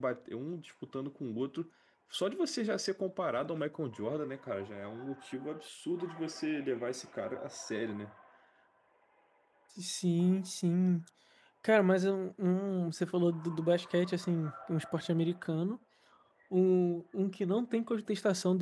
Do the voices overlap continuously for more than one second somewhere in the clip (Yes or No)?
No